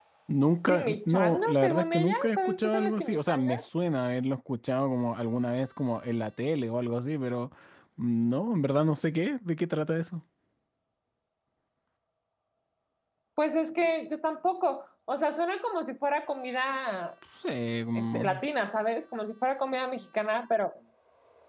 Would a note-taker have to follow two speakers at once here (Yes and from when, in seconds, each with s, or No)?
Yes, from 0.6 s